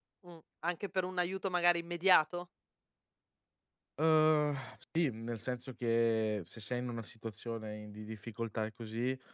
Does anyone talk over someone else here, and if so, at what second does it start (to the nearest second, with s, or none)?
none